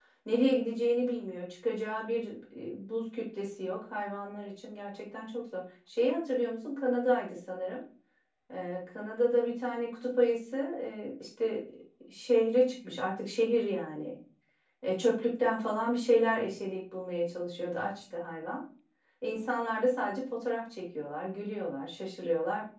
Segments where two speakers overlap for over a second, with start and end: none

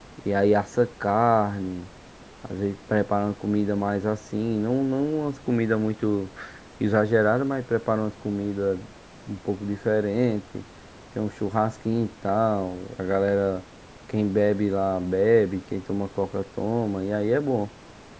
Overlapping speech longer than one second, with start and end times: none

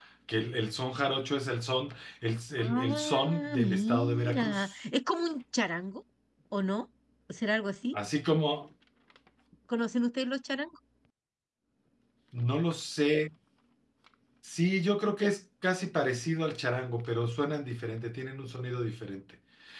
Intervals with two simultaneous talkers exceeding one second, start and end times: 2.6-4.8

